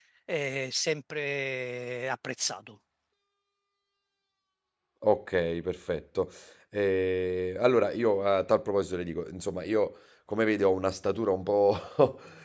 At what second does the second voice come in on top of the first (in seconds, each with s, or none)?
none